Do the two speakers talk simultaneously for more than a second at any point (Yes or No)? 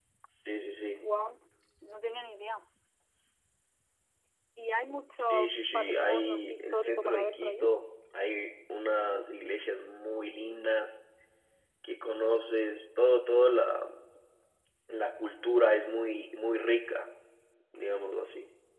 Yes